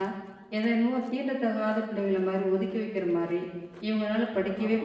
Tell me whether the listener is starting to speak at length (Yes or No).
No